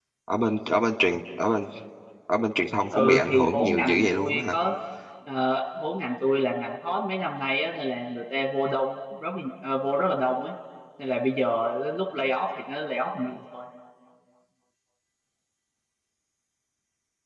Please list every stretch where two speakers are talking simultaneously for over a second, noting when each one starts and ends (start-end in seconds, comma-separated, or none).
2.9-4.5